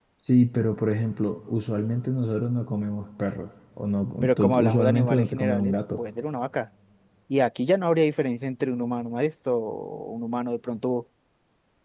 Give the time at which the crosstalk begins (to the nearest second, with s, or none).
4 s